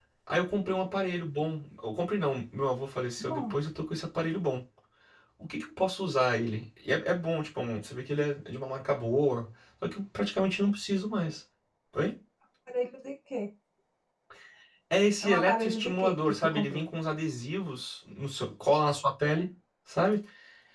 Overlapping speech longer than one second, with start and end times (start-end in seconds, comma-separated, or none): 15.2-16.8